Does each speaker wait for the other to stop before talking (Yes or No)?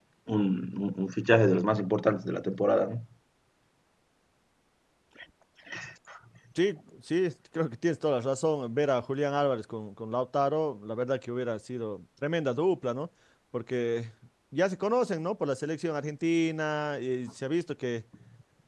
Yes